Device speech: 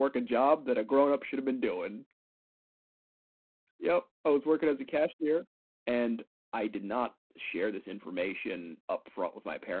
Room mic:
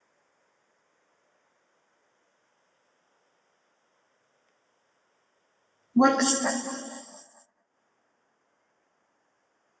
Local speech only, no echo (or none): What's